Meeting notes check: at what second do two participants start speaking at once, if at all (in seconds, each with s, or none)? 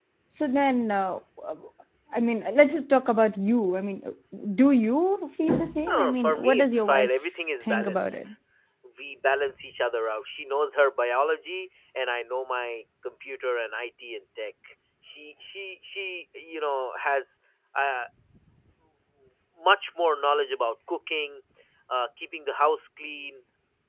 5.9 s